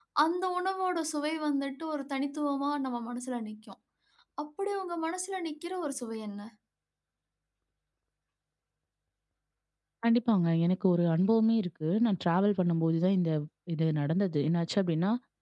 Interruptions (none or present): none